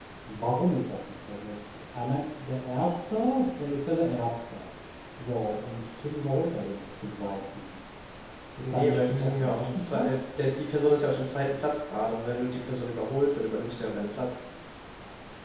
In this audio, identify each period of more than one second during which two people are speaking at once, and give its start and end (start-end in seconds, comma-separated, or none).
8.6-10.2